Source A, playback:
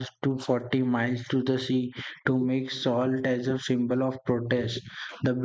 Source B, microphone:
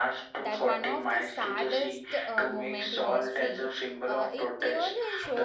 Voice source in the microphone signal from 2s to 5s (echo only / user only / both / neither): both